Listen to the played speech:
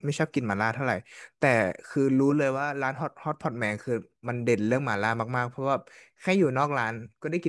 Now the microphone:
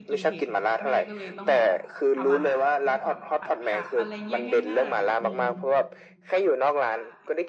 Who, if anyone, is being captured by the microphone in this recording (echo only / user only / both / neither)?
both